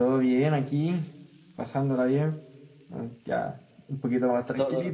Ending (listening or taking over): taking over